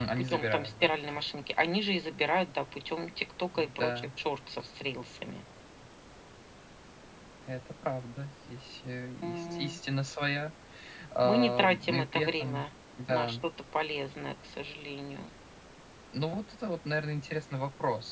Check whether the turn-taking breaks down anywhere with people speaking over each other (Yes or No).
Yes